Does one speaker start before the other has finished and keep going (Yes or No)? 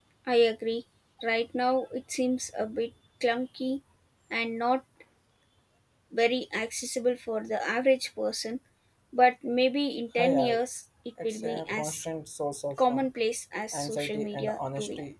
Yes